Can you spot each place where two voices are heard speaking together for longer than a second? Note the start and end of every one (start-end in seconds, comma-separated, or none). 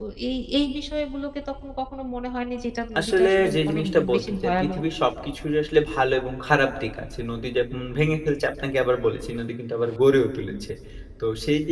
3.0-4.7